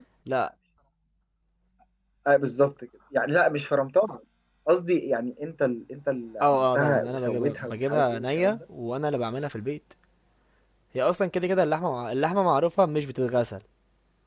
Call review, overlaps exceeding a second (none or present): present